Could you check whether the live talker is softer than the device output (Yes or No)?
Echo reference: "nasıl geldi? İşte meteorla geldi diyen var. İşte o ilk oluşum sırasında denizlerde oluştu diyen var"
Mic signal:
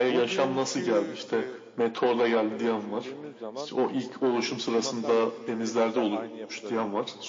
Yes